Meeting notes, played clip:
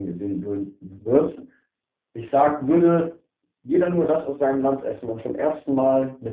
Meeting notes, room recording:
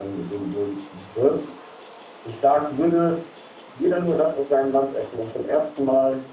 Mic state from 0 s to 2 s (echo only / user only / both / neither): echo only